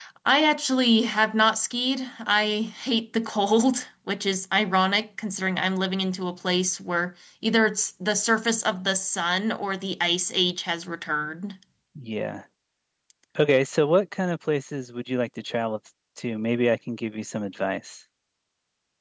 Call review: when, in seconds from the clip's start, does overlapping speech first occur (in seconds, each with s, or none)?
none